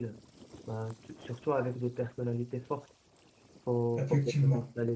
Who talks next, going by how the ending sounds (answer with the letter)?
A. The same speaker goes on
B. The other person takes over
A